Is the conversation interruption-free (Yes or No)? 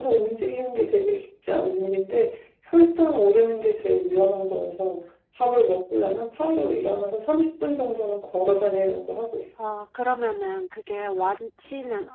Yes